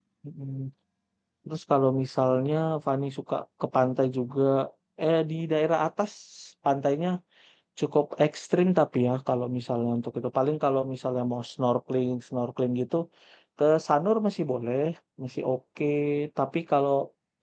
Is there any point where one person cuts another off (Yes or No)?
No